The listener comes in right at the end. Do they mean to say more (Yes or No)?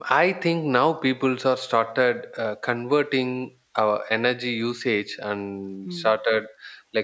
No